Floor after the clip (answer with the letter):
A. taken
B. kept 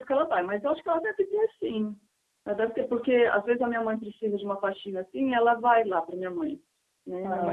B